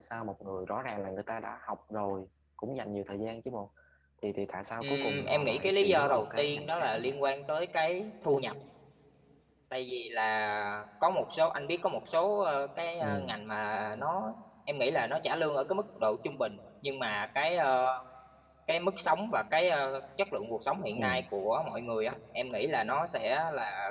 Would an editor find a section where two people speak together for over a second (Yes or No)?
Yes